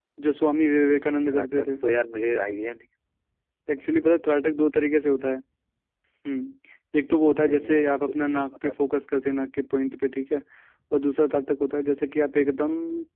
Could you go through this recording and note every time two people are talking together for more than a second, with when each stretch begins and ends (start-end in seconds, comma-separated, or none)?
7.5-8.7